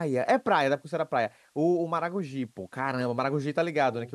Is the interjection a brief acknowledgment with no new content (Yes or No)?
Yes